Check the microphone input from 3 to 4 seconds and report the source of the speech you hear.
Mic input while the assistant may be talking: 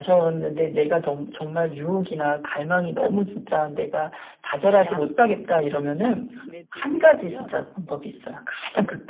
echo only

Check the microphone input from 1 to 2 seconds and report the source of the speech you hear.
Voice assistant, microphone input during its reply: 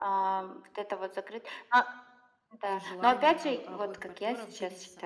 echo only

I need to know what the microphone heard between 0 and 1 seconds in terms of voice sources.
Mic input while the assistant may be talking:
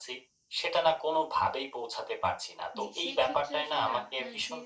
echo only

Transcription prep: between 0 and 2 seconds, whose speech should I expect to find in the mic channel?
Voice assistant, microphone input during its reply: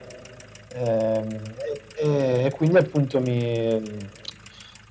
echo only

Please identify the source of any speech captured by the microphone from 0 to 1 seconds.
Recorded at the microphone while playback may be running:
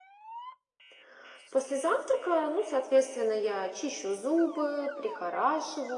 neither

